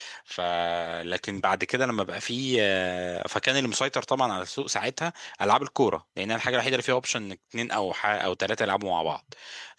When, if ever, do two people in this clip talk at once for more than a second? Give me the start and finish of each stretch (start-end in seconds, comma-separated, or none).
none